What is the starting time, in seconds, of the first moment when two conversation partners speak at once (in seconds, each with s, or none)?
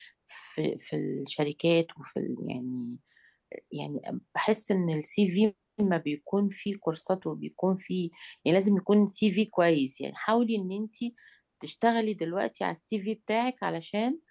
none